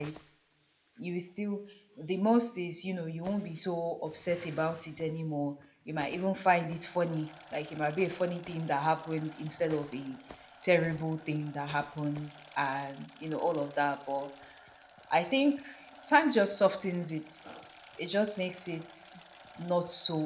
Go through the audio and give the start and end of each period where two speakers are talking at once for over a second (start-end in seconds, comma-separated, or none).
none